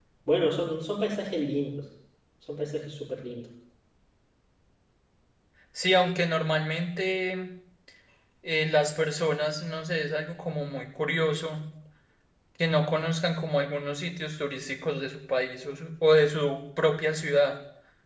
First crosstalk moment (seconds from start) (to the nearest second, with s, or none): none